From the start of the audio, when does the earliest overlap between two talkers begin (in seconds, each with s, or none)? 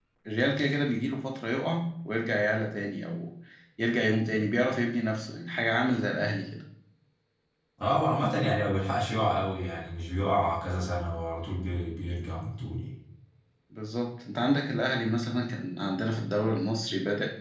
none